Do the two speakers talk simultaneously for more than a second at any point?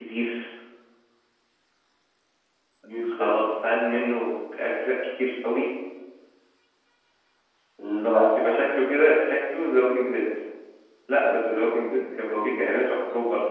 Yes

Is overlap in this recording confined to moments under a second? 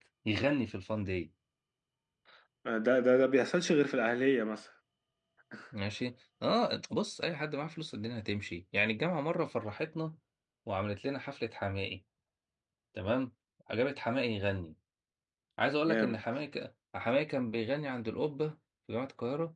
Yes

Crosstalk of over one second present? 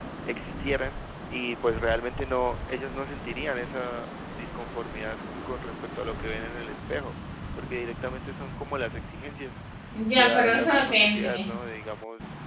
Yes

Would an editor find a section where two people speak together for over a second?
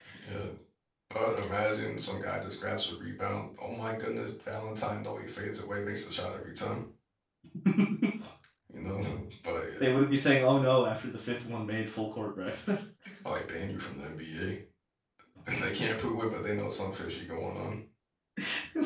No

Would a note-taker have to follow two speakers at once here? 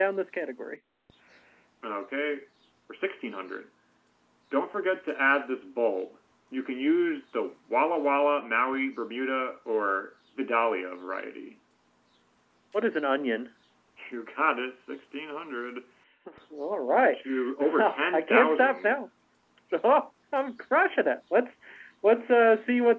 Yes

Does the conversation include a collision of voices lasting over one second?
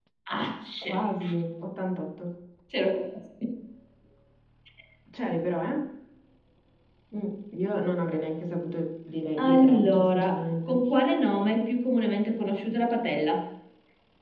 Yes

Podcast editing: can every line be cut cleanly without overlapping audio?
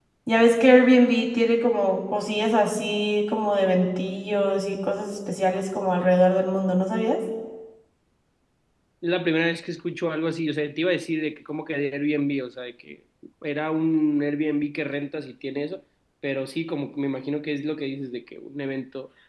Yes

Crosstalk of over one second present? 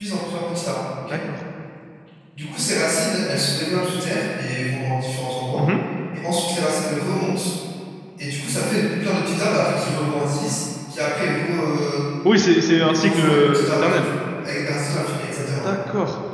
Yes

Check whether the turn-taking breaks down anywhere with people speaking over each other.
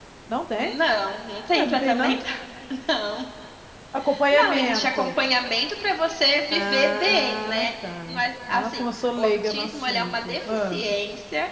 Yes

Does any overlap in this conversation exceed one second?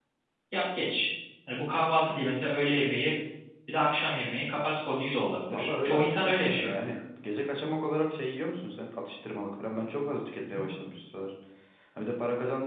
Yes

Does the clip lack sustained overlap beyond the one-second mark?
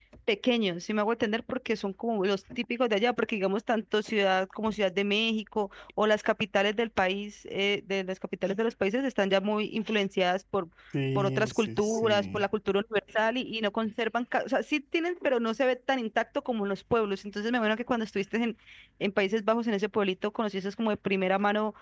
No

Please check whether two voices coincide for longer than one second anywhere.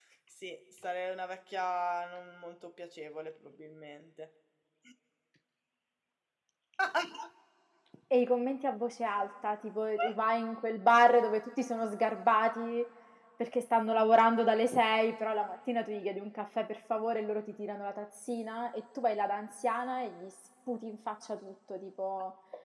No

